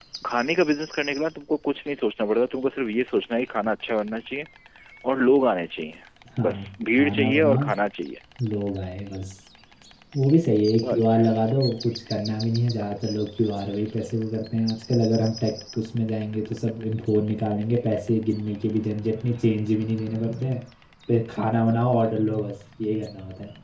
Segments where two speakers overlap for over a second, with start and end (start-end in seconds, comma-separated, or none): 6.5-7.7